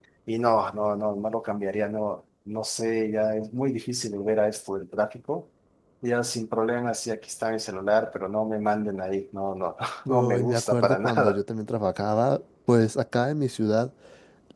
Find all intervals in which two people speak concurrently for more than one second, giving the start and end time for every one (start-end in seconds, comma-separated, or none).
10.1-11.4